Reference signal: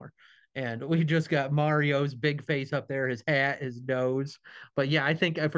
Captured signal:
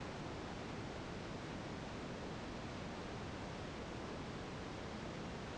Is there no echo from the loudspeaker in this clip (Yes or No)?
Yes